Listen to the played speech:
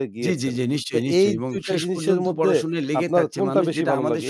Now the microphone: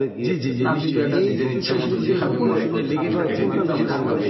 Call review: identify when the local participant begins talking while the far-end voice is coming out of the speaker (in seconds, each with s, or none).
0.7 s